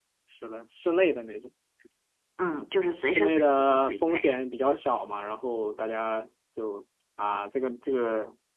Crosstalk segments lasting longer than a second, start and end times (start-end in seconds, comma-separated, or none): 3.1-4.4